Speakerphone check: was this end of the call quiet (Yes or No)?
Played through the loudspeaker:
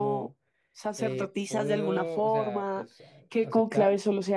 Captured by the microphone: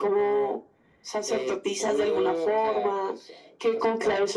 Yes